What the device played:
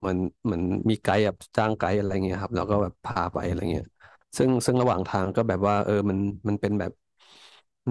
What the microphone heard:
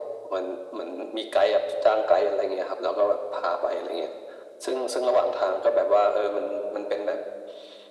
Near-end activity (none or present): none